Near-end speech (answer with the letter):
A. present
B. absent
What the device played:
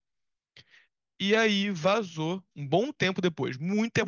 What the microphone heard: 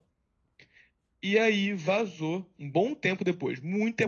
B